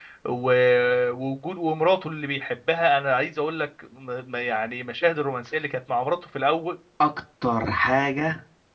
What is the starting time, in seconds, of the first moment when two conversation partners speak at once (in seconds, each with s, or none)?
none